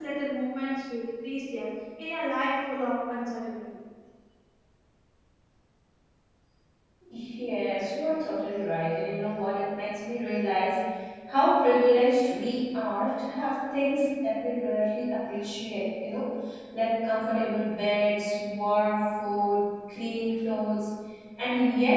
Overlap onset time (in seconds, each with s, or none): none